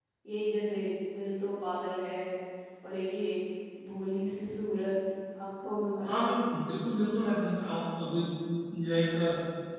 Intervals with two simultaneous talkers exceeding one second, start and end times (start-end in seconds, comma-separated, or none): none